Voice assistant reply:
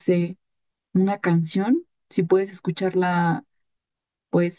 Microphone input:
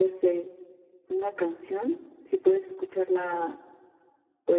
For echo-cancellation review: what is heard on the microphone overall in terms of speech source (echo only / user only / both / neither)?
echo only